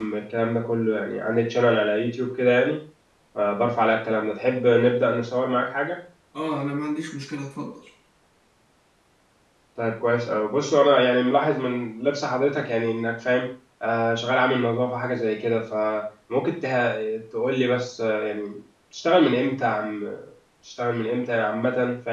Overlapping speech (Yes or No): No